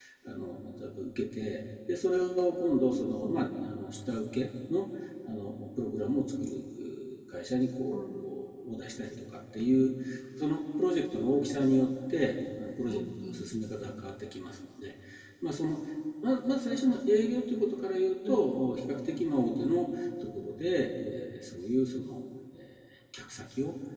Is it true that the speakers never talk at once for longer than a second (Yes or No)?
Yes